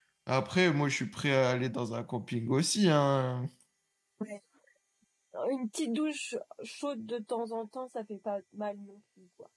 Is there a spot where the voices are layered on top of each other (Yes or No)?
No